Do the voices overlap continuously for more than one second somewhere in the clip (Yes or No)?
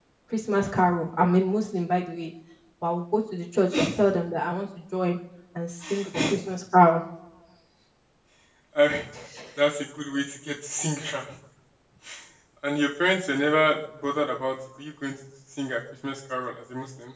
No